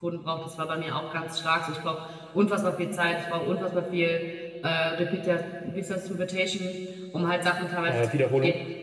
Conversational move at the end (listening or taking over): listening